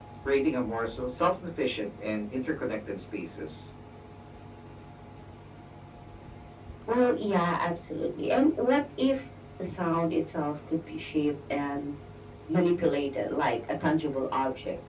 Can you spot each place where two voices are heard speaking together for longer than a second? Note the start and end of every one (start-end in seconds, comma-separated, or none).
none